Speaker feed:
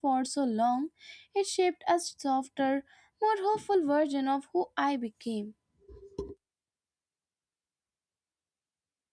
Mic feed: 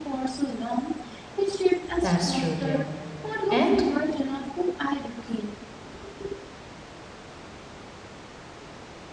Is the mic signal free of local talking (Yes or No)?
No